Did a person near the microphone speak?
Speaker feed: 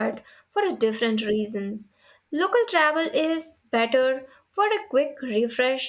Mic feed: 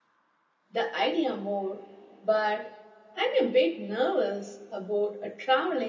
Yes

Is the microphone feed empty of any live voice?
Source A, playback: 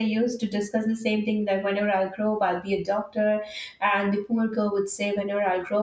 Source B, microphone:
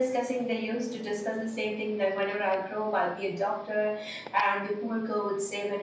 Yes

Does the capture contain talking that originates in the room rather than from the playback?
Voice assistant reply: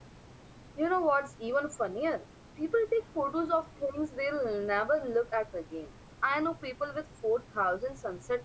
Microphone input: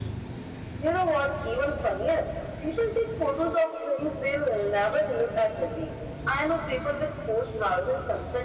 No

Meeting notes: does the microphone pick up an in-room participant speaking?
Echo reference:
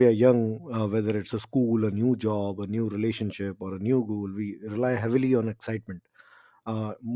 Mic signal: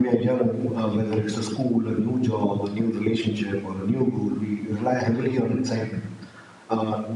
No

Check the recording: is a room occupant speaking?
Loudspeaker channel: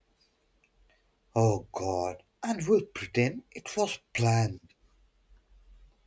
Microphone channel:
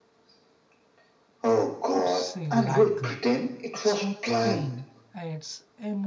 Yes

